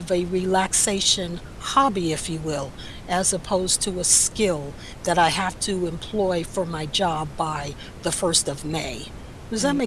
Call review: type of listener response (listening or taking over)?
taking over